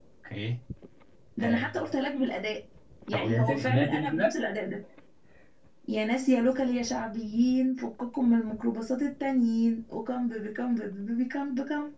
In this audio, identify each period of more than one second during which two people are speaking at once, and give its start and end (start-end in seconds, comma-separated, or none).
3.1-4.3